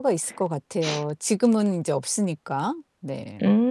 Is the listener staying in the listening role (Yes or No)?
No